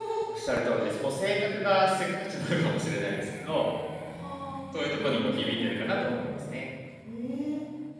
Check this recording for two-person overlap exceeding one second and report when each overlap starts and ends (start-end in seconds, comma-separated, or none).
4.9-6.3